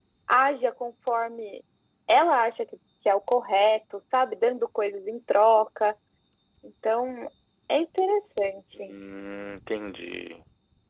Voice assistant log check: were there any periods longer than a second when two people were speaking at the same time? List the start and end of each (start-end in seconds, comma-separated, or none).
none